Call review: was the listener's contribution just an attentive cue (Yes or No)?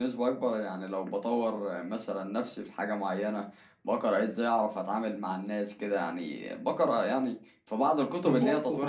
No